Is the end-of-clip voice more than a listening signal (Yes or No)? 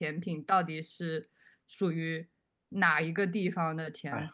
Yes